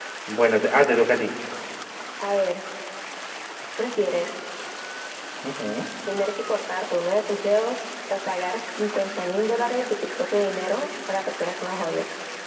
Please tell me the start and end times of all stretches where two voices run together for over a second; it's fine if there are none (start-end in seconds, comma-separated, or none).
none